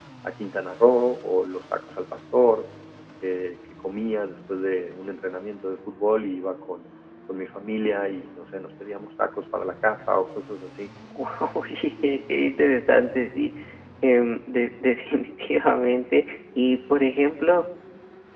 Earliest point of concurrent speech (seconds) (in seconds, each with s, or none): none